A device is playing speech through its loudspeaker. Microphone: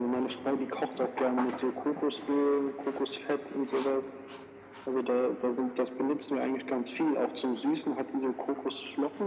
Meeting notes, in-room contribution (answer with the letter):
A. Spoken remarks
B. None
B